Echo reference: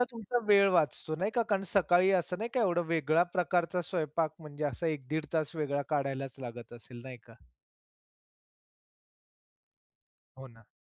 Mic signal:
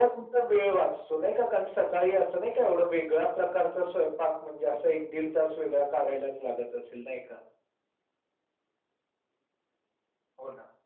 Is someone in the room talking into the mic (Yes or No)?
No